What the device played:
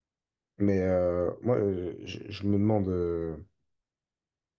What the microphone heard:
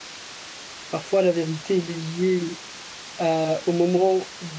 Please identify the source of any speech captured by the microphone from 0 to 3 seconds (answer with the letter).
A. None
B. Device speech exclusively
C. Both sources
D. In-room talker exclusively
D